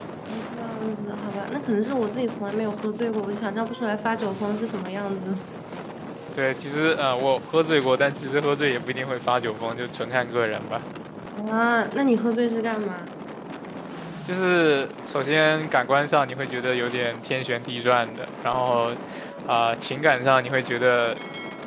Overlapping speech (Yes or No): No